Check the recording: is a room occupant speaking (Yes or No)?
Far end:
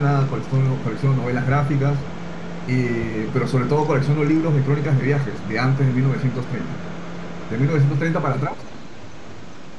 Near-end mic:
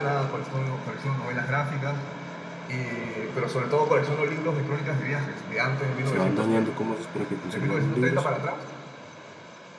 Yes